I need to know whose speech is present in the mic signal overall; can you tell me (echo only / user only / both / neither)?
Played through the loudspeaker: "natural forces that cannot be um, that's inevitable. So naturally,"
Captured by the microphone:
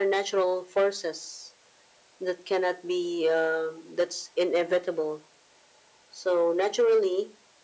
echo only